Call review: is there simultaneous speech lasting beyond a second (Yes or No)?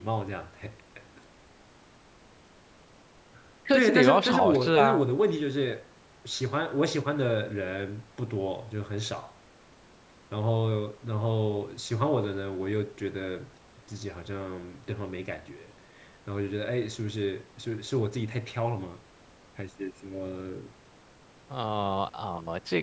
Yes